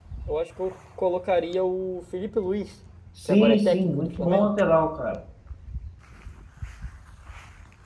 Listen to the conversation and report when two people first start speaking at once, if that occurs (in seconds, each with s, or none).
3.3 s